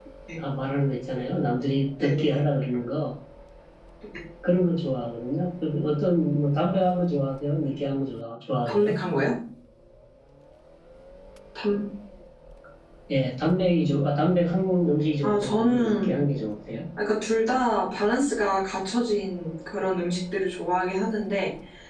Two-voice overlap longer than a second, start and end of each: 15.2-16.5

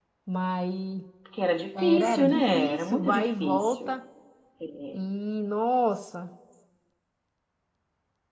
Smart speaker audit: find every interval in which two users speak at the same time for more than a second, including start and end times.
1.8-3.9

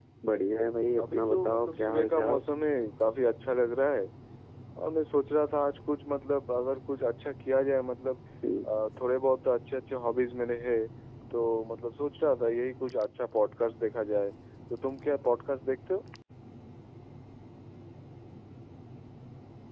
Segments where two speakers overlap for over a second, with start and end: 1.0-2.4

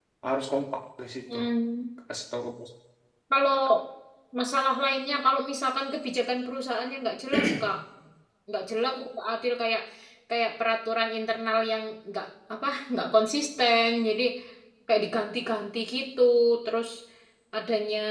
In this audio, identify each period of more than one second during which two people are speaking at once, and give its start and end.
none

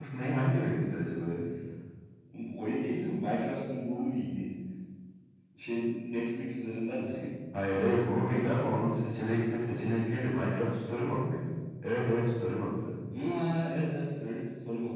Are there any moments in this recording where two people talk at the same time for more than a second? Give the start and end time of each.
none

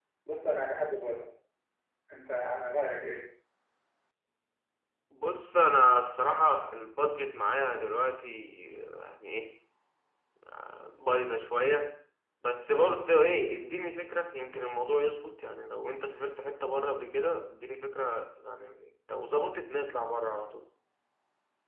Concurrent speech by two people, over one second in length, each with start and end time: none

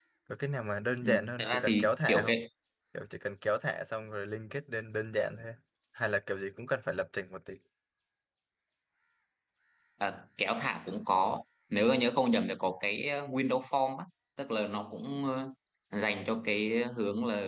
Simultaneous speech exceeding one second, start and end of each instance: 1.0-2.4

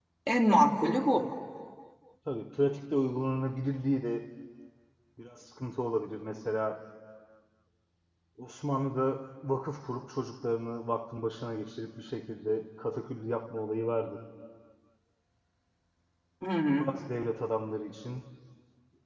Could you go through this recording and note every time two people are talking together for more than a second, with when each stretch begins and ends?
none

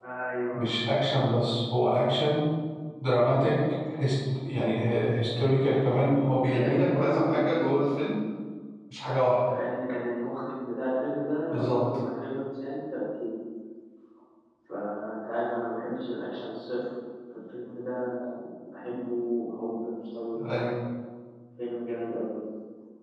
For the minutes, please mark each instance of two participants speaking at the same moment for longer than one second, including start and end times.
6.2-7.9

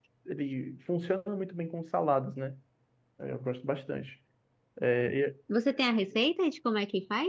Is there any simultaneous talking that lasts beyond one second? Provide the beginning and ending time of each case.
none

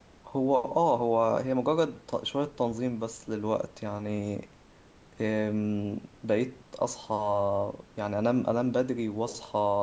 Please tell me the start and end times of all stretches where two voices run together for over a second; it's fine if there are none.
none

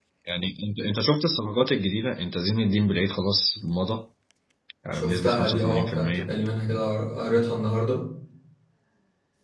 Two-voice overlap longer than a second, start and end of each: 4.9-6.3

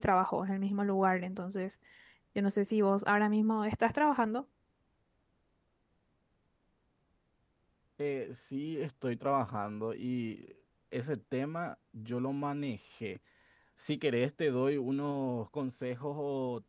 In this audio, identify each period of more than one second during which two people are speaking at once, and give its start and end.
none

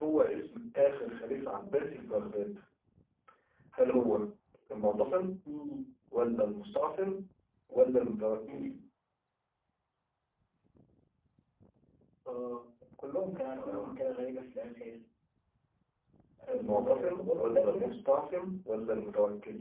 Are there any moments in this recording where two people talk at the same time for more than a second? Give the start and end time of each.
16.5-17.9

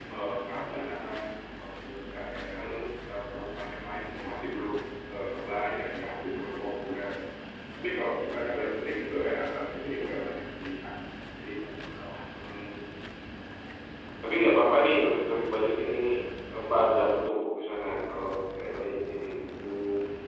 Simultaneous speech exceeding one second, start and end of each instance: none

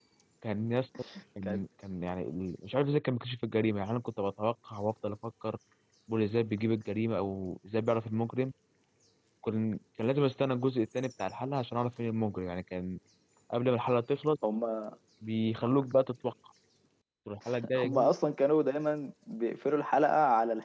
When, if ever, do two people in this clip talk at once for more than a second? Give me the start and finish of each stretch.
none

